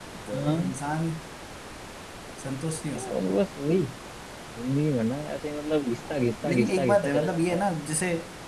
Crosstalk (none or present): present